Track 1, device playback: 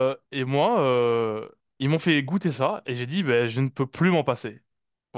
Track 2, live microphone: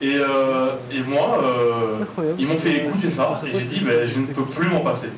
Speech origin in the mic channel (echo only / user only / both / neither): both